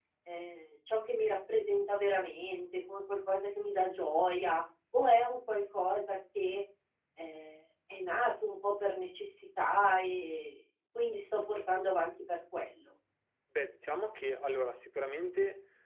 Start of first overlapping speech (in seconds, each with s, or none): none